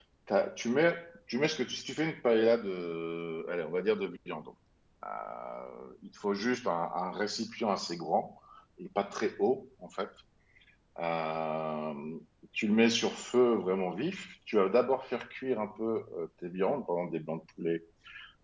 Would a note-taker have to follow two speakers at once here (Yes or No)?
No